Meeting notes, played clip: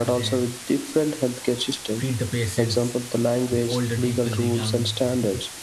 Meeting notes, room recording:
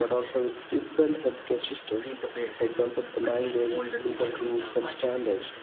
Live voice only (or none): medical tourism emerge, emerges.